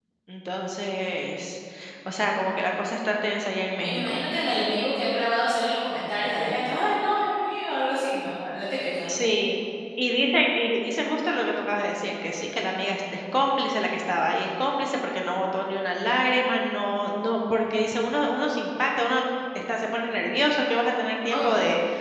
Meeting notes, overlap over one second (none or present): none